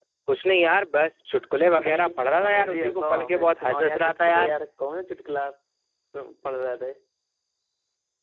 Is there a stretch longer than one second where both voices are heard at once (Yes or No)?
Yes